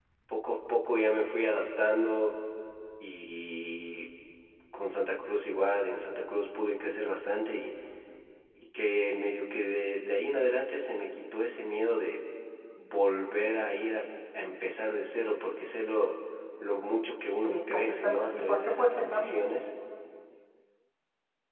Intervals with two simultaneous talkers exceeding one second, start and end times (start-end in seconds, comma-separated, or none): 17.5-19.4